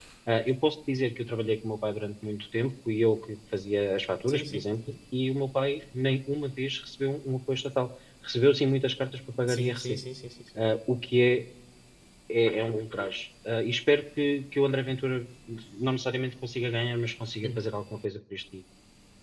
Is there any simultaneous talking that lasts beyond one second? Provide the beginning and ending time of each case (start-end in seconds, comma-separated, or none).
none